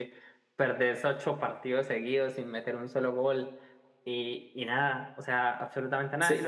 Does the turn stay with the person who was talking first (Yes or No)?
No